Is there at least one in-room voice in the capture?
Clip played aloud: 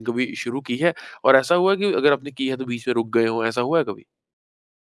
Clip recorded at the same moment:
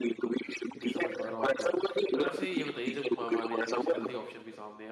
Yes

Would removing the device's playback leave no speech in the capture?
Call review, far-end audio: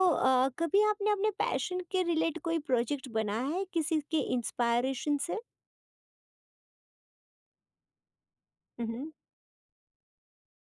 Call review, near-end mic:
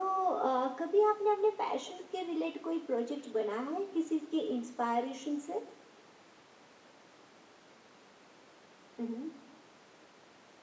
Yes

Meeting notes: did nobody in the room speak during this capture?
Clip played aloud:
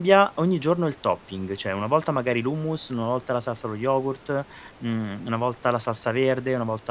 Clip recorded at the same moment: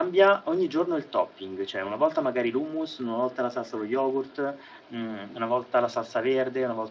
Yes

